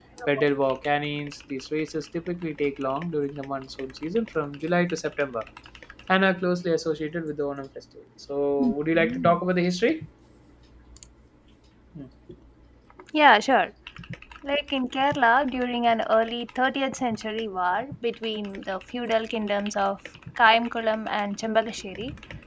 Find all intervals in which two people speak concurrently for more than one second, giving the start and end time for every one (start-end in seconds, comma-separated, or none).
none